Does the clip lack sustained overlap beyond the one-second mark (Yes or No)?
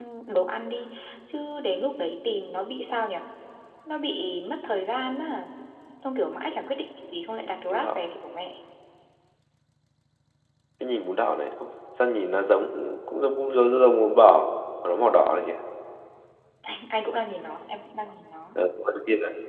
Yes